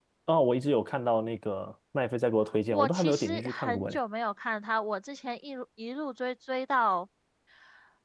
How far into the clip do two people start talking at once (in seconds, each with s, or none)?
2.7 s